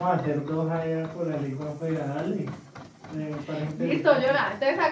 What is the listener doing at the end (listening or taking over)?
taking over